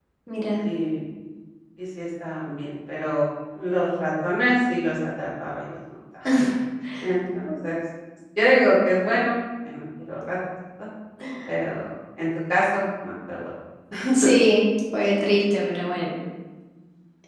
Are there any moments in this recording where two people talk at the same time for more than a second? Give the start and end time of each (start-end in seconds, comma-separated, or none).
none